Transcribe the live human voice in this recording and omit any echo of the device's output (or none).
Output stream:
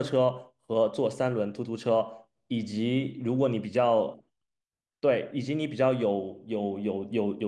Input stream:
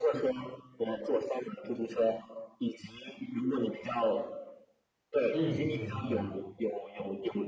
嗯嗯嗯